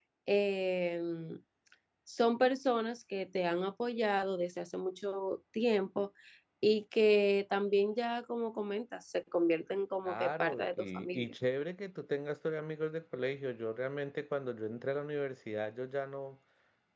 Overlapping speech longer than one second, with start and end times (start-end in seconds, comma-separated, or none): 10.0-11.3